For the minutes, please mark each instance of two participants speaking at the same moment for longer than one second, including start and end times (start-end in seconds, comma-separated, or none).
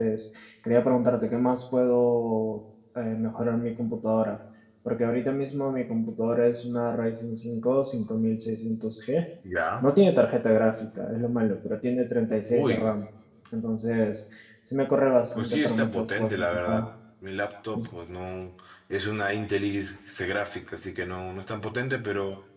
15.3-16.8